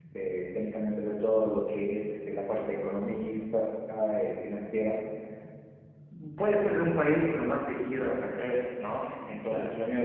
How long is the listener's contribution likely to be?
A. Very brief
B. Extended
A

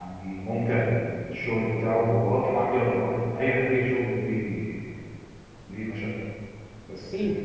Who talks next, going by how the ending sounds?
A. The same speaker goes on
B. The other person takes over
A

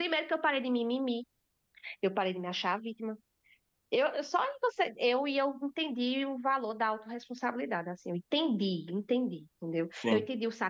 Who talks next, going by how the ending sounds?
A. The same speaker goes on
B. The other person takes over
A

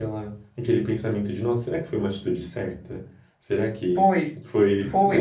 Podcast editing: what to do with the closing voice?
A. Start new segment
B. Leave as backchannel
A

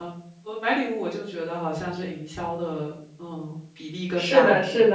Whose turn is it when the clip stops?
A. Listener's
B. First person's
A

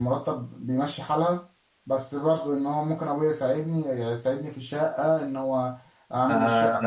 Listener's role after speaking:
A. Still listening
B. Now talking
B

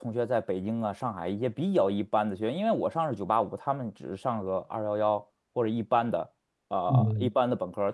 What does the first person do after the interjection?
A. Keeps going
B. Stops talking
A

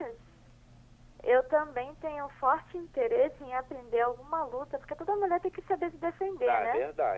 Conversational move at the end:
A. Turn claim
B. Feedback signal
A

